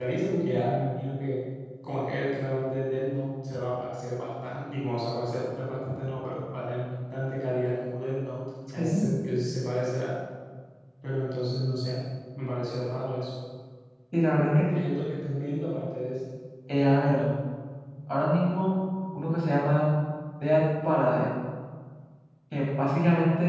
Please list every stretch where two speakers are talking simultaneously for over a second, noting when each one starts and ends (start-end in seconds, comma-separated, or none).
none